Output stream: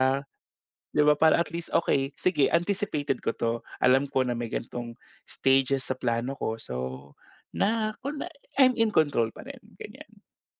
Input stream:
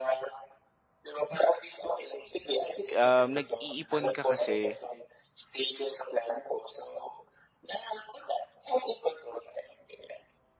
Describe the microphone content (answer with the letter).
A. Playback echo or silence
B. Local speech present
B